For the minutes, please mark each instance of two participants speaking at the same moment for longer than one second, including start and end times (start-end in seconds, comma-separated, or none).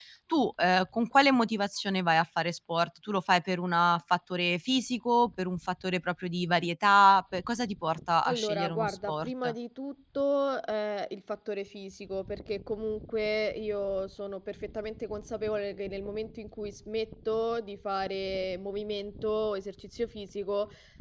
8.2-9.5